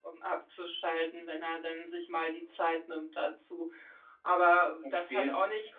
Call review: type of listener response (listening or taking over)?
listening